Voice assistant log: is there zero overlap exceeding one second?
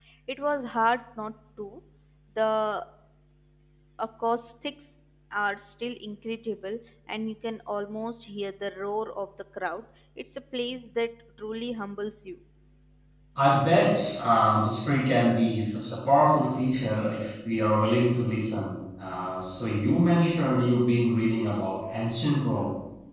Yes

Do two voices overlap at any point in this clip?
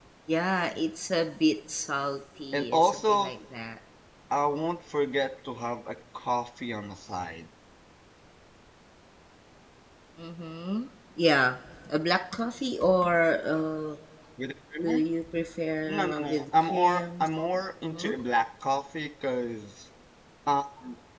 Yes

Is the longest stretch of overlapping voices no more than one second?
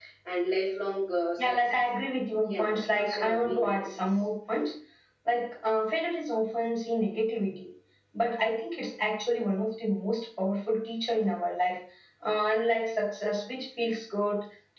No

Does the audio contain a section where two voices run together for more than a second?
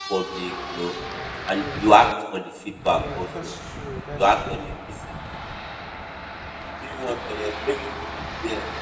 No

